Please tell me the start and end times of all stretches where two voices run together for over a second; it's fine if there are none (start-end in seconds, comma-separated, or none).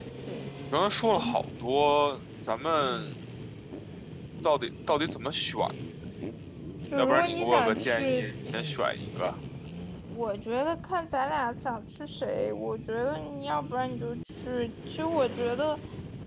7.0-8.2